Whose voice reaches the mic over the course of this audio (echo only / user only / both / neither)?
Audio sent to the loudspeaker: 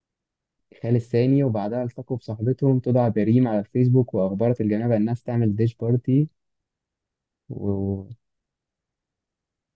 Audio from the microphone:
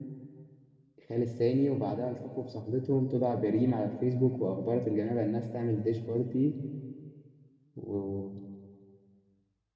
echo only